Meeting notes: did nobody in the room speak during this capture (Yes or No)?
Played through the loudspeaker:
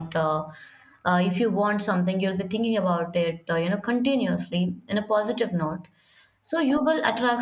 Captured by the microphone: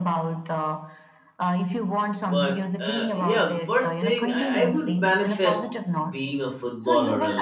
No